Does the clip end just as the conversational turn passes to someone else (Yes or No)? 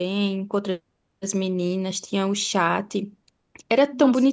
No